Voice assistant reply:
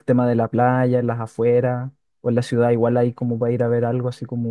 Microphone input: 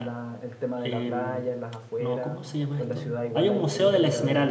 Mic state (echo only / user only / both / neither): both